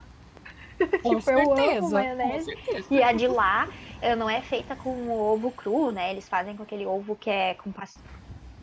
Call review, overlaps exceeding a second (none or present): present